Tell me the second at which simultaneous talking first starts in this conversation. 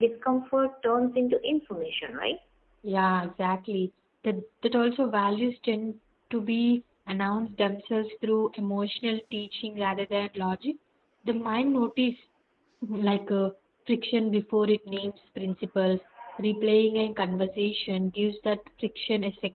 none

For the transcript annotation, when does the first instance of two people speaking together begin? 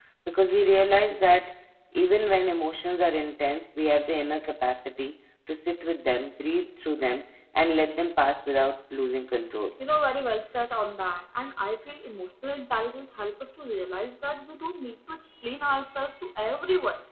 none

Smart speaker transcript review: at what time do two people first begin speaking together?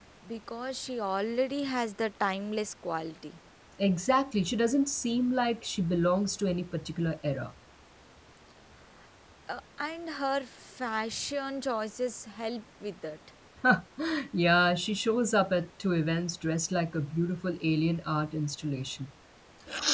none

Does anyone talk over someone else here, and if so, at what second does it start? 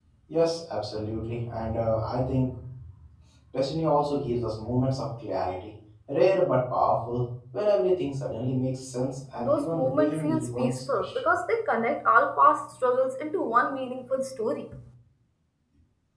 9.4 s

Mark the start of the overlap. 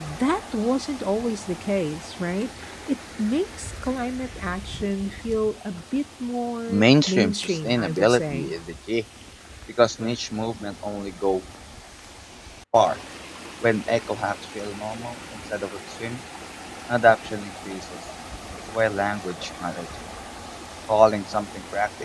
6.7 s

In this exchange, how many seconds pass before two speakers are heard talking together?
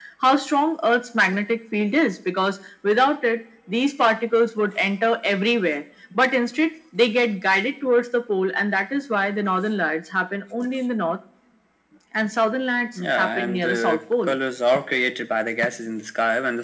13.0 s

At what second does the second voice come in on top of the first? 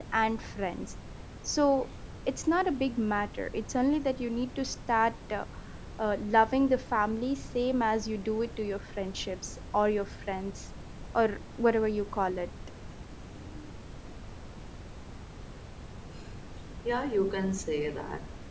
none

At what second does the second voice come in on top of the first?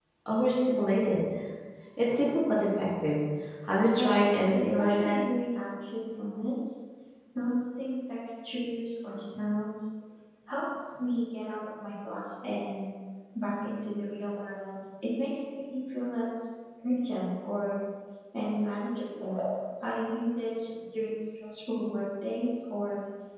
3.9 s

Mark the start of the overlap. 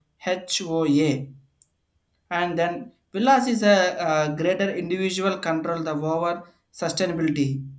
none

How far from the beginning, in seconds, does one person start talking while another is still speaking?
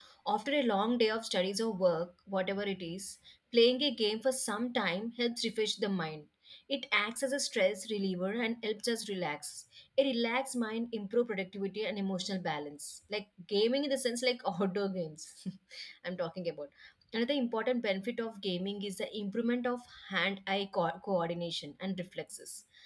none

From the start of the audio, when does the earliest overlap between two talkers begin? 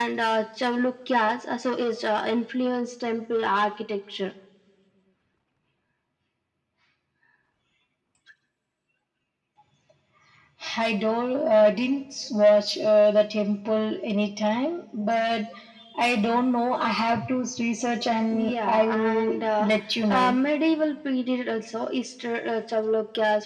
18.3 s

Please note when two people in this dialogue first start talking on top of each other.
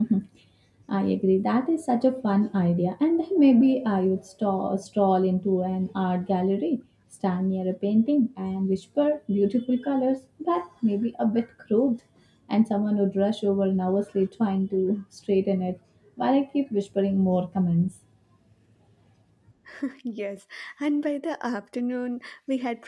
none

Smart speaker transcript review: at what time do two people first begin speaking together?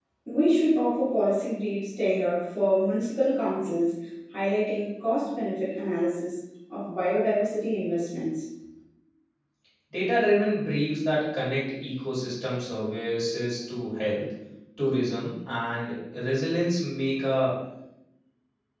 none

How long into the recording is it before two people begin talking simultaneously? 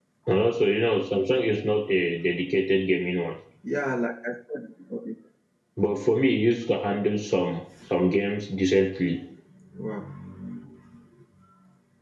none

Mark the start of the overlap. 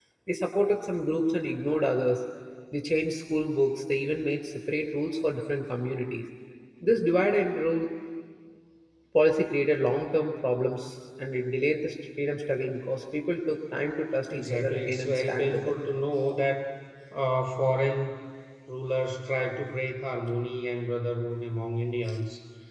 14.3 s

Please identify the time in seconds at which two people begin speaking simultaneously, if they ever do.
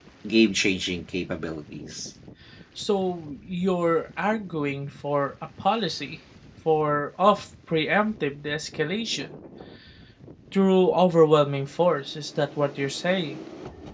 none

